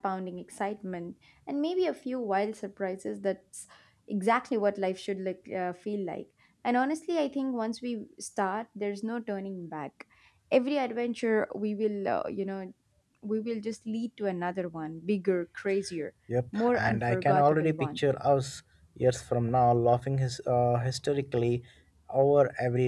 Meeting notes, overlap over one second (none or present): present